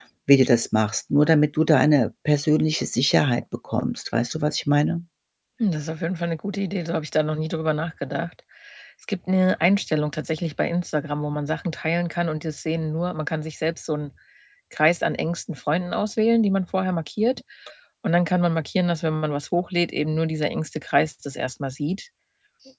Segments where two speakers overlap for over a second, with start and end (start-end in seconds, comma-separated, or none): none